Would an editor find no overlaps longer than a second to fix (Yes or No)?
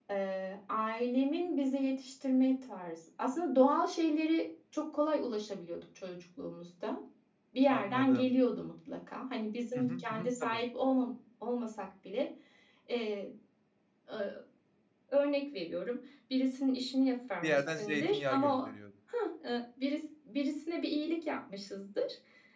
No